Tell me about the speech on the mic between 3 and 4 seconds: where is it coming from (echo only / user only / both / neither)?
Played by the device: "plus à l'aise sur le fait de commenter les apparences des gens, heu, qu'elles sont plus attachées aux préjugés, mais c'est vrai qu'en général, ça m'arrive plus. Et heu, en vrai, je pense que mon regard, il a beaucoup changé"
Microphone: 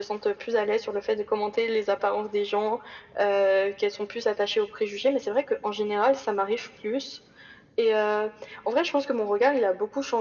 echo only